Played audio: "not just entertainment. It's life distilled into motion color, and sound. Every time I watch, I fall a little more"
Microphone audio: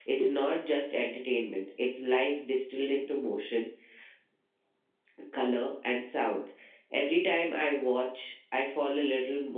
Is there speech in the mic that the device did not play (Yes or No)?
No